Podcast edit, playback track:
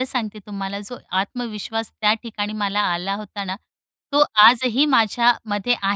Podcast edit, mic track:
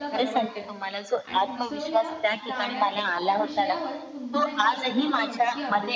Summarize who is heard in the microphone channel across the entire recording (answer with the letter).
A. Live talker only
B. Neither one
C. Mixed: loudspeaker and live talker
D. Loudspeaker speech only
C